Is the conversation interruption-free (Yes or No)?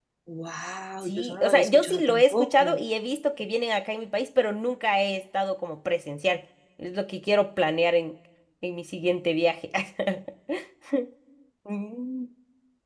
No